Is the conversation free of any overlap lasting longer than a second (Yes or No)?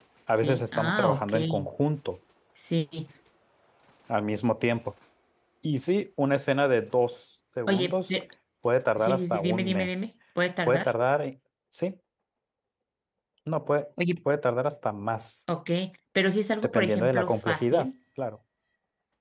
No